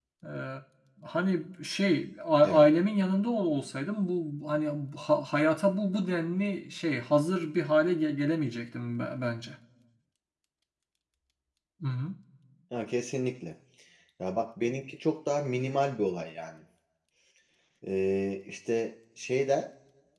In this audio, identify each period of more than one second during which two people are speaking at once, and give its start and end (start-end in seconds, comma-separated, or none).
none